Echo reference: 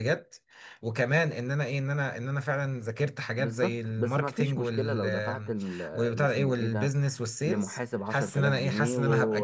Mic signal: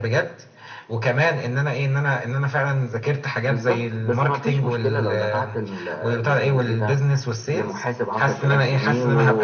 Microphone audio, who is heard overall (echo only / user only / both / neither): echo only